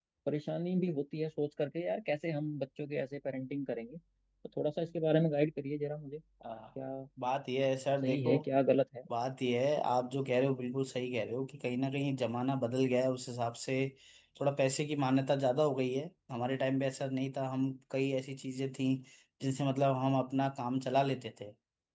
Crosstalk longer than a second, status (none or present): none